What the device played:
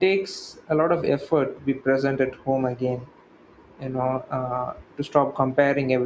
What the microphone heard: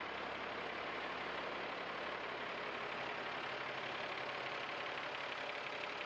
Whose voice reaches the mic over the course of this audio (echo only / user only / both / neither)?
neither